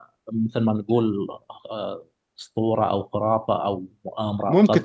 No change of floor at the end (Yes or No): No